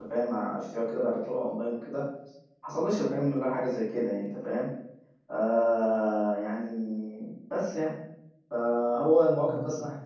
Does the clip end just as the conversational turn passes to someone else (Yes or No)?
No